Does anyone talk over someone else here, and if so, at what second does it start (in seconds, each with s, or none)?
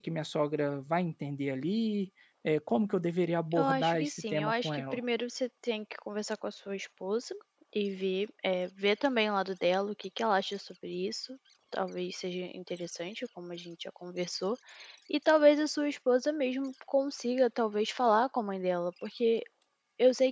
3.5 s